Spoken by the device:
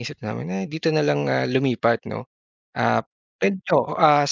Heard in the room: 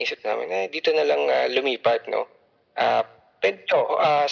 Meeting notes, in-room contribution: none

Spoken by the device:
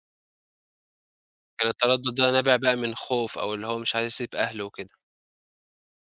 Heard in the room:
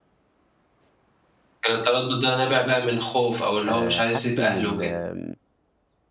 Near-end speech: present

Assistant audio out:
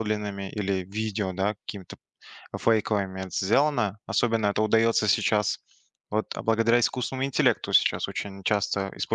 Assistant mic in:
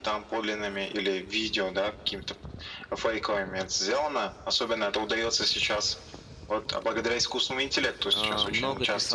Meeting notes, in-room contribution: present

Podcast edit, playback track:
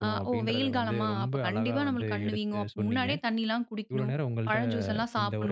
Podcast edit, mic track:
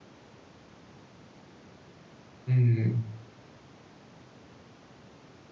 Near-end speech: present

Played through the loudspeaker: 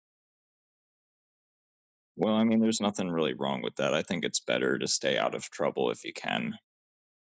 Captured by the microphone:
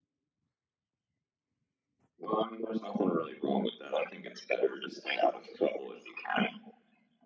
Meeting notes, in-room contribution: none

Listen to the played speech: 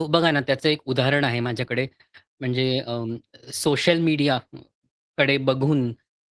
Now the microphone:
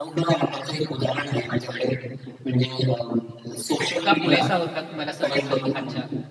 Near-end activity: present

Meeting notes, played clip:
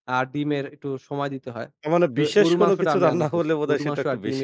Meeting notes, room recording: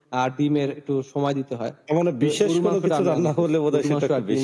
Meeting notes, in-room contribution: none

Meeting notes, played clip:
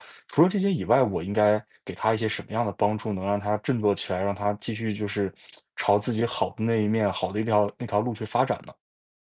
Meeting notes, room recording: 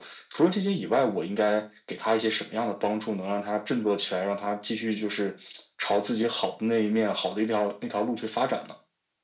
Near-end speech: none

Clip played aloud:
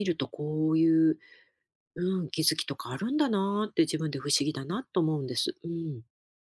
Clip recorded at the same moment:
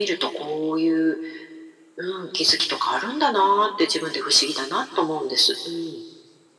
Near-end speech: none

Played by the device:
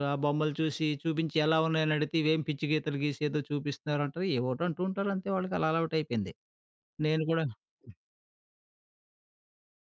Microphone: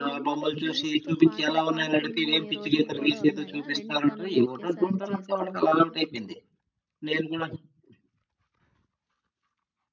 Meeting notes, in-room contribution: present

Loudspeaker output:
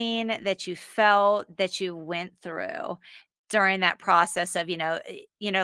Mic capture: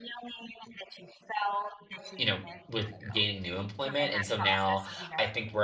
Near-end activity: present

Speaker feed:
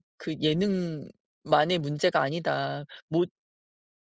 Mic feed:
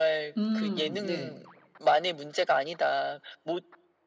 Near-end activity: present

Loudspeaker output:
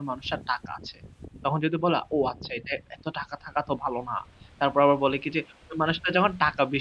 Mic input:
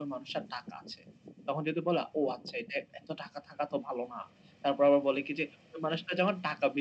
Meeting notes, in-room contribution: none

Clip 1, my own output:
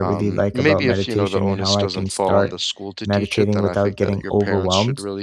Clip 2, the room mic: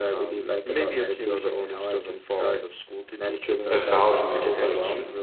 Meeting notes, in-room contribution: present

